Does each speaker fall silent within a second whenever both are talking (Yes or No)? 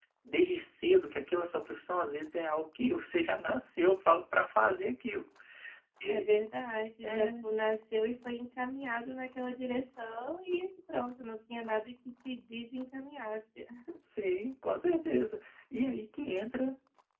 Yes